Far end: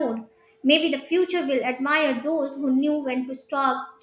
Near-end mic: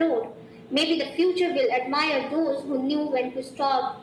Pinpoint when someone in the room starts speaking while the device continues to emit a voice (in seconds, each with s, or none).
none